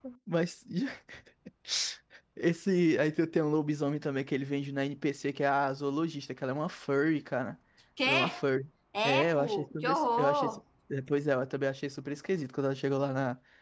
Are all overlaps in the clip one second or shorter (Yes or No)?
No